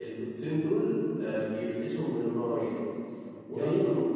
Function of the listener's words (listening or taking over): listening